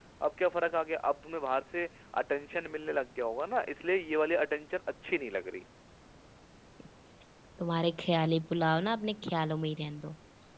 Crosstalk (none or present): none